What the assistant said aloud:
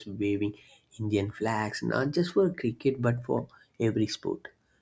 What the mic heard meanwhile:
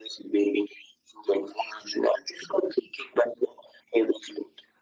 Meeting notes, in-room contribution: none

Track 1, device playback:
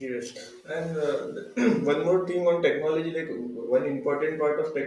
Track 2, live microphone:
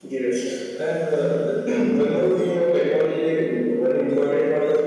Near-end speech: none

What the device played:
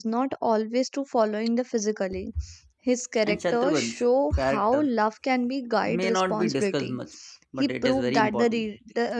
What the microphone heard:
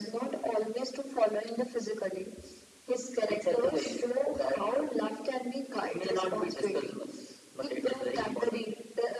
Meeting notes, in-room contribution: none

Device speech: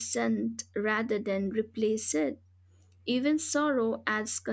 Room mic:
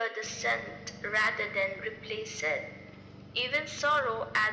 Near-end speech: none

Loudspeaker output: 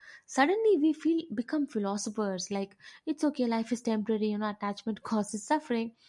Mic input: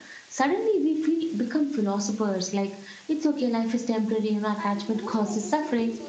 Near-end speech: present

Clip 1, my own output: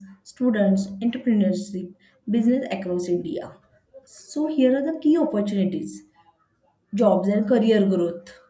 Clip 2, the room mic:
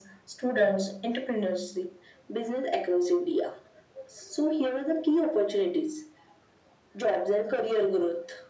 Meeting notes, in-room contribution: none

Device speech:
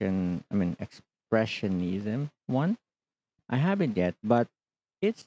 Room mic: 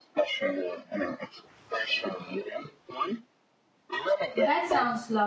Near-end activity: present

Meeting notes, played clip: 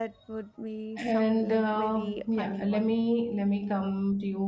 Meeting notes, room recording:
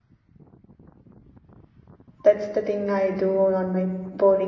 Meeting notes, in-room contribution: present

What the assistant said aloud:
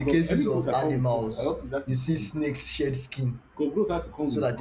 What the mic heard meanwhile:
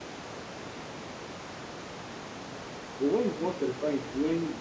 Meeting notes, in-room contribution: present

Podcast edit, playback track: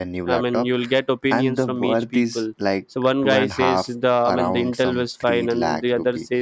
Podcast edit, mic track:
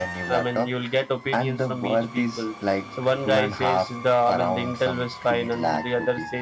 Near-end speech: none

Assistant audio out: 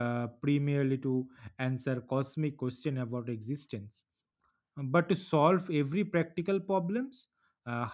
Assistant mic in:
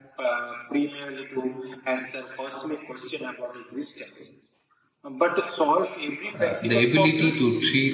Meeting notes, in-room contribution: present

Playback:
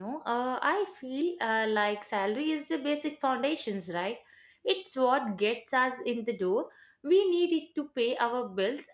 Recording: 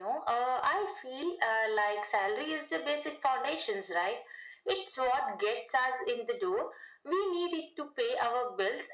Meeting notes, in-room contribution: none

